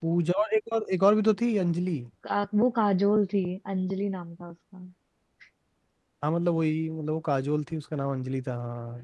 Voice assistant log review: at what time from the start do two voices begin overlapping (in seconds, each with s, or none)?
none